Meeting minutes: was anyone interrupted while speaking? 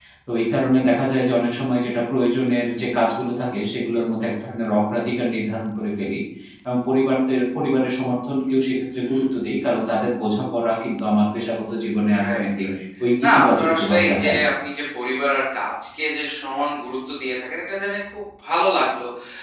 Yes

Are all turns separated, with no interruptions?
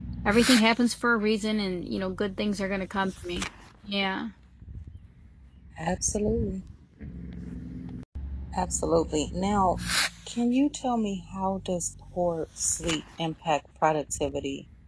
Yes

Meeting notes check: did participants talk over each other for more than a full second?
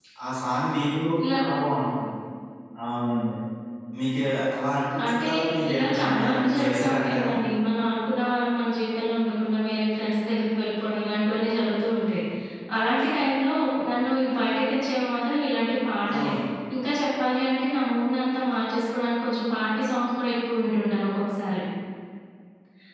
Yes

